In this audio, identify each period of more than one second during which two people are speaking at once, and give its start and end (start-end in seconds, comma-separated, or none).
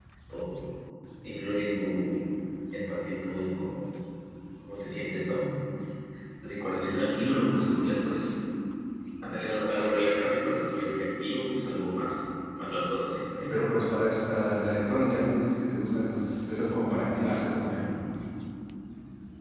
none